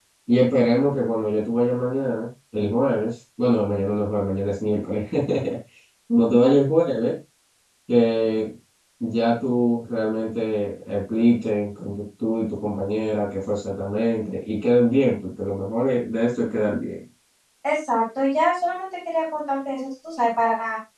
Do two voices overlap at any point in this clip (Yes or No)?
No